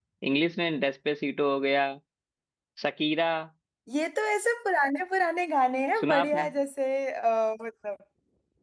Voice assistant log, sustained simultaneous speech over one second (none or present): none